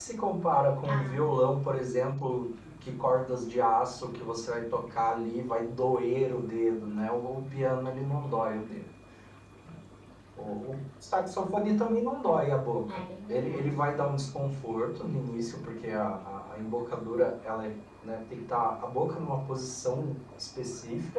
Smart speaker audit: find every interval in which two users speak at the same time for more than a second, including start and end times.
12.9-14.1

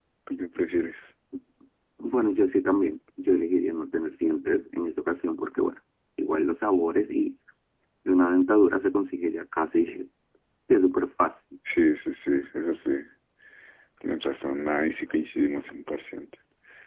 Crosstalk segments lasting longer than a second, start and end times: none

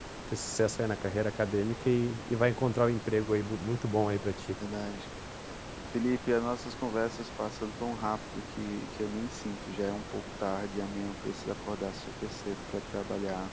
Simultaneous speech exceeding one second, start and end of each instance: none

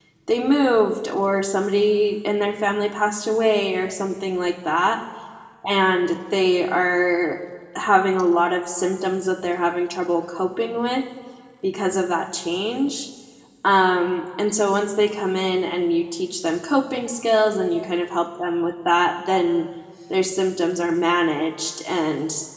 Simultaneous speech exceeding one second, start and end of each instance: none

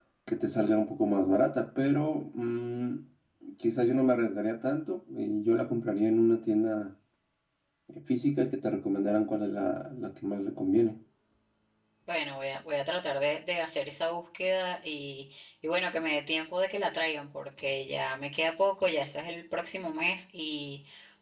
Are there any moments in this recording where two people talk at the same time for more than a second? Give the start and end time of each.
none

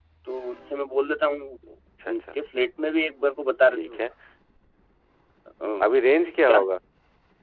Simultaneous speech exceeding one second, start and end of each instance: none

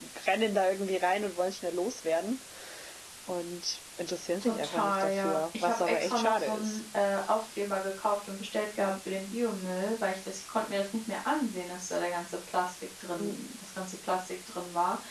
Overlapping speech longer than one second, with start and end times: 4.4-6.8

